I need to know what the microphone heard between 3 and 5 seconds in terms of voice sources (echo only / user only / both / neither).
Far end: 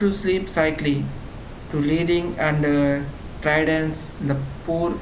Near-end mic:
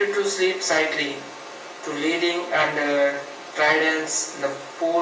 echo only